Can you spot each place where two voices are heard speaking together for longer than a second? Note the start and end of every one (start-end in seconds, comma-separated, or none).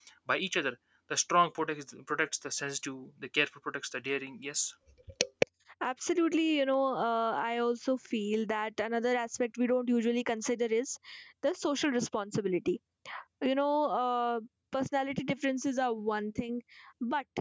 none